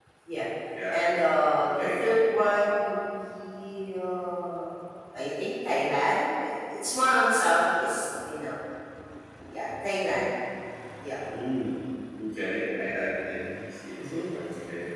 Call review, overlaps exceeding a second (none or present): none